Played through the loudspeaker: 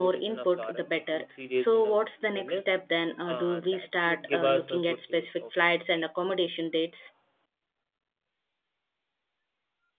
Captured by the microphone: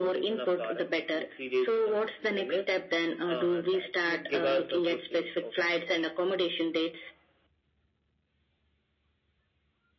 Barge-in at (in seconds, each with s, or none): none